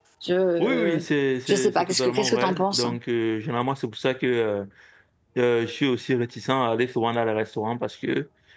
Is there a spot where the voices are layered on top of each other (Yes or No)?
Yes